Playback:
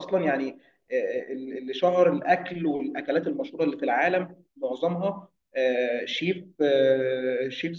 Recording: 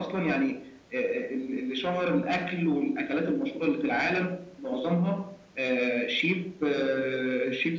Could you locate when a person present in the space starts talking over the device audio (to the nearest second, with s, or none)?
none